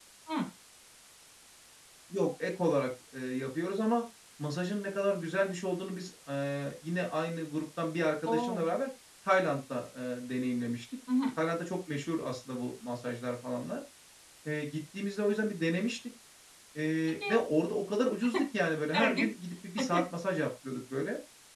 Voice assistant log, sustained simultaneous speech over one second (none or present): none